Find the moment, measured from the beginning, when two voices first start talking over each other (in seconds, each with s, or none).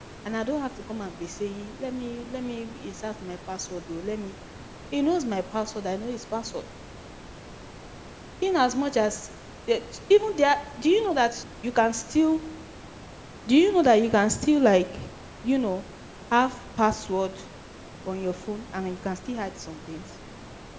none